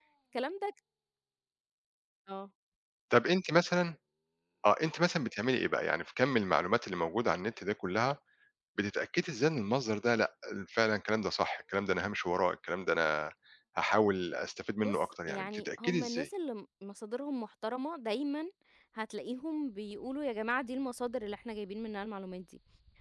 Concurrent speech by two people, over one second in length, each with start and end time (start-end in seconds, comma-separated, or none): 14.8-16.3